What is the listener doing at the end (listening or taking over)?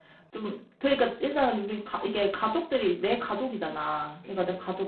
listening